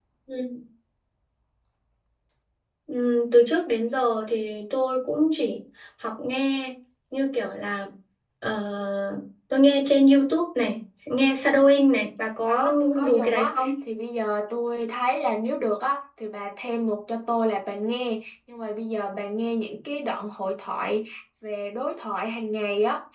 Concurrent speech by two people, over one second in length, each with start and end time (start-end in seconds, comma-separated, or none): 12.4-13.7